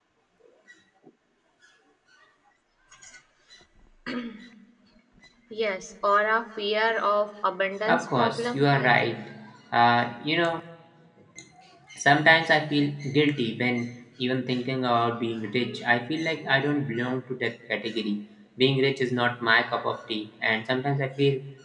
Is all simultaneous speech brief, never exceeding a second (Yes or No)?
No